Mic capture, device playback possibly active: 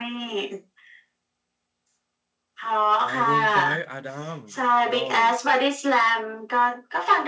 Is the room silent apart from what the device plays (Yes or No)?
No